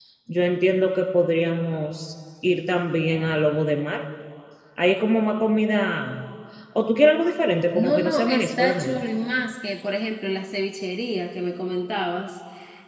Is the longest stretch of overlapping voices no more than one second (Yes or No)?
No